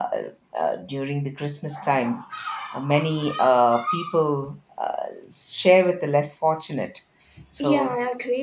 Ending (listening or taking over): taking over